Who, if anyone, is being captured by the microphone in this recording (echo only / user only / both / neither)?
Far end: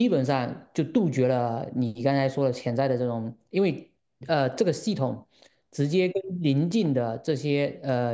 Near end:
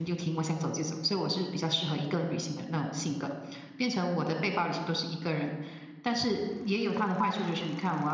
user only